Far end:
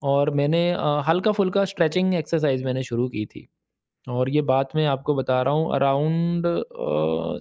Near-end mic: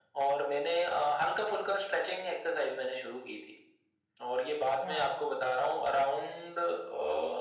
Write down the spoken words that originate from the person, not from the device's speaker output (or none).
या